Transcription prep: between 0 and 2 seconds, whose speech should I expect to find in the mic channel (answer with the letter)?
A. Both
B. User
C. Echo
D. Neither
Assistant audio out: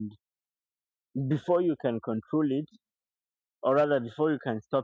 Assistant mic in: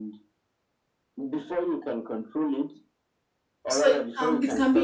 C